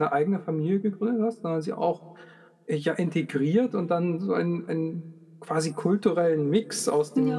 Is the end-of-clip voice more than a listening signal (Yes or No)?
No